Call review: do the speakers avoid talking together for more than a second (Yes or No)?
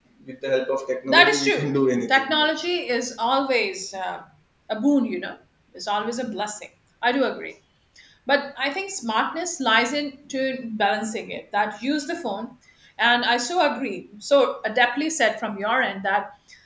No